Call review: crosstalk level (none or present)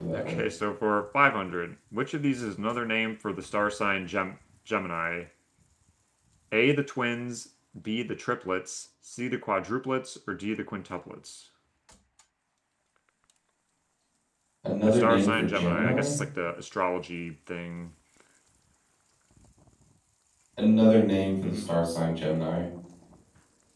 present